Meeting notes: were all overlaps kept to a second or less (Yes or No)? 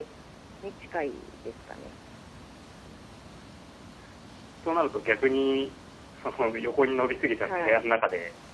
Yes